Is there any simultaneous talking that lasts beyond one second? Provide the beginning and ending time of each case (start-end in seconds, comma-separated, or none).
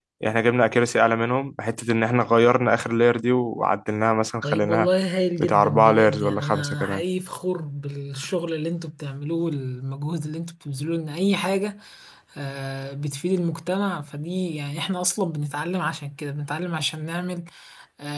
5.4-7.0